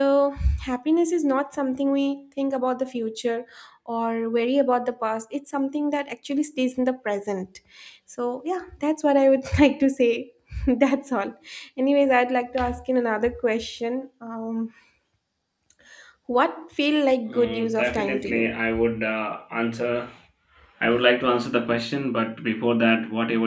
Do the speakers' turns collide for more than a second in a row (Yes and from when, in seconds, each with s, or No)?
Yes, from 17.3 s